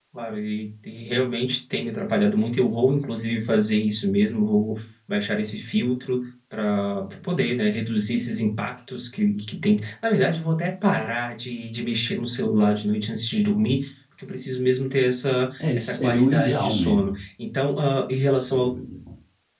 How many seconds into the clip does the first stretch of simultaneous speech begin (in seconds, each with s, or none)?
15.6 s